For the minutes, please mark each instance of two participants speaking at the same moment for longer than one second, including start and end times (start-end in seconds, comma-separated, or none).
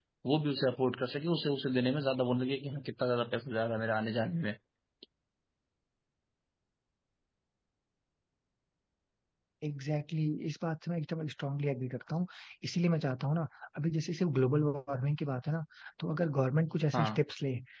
none